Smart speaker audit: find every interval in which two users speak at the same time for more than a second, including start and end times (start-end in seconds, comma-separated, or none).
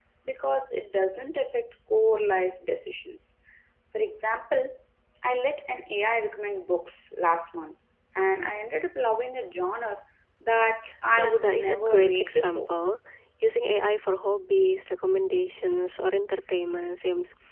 11.2-12.7